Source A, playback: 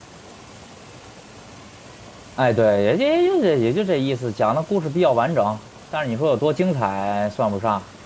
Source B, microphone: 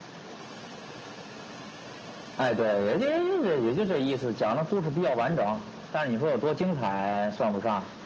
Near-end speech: none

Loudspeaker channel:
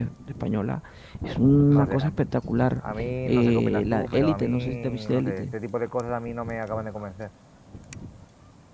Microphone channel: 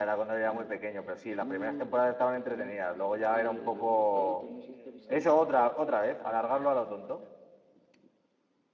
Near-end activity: present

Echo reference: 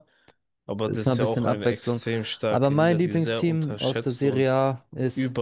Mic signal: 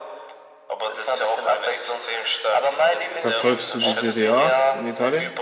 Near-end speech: present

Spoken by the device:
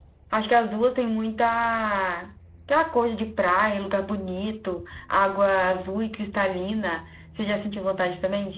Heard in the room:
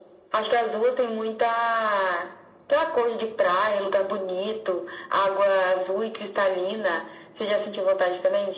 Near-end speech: none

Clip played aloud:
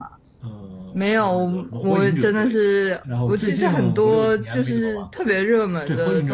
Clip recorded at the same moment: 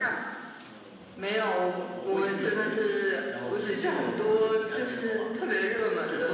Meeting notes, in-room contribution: none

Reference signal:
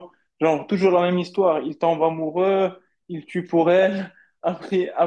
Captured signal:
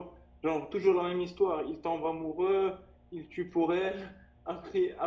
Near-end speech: none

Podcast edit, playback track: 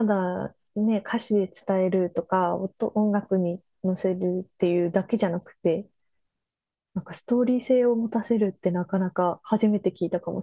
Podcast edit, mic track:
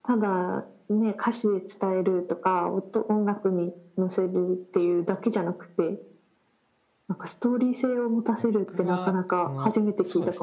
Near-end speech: present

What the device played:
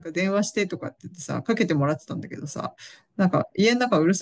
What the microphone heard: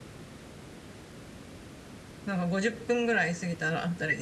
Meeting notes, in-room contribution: present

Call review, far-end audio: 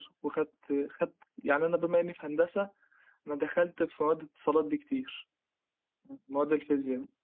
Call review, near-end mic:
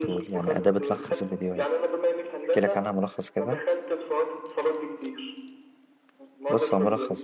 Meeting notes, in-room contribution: present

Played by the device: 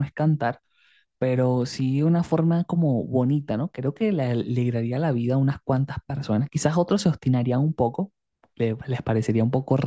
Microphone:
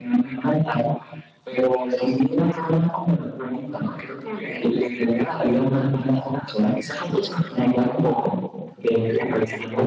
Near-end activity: none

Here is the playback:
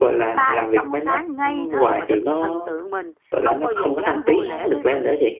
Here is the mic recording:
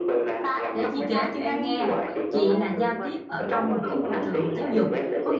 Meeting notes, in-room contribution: present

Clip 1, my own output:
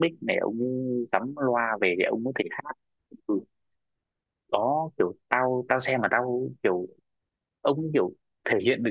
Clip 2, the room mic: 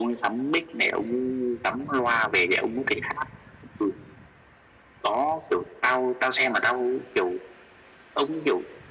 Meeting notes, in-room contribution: none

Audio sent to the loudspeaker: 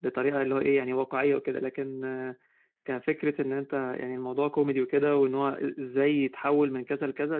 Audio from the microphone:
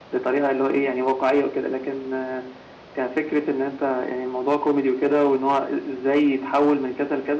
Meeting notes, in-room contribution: none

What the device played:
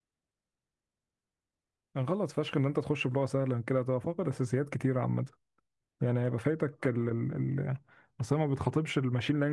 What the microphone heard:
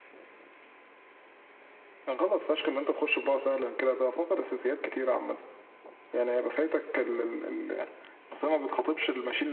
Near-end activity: none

